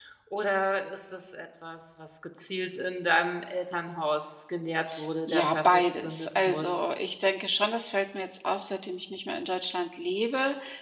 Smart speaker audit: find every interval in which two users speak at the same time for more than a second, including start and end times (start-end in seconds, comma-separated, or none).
5.3-6.8